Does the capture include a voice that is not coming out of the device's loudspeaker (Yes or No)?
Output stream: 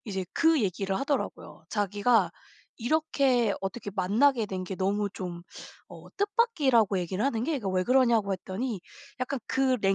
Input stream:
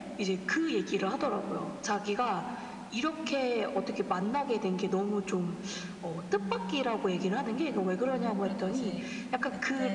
Yes